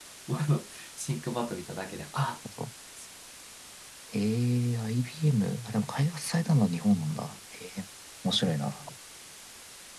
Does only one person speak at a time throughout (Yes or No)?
Yes